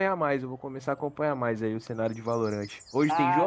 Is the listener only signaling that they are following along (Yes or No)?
No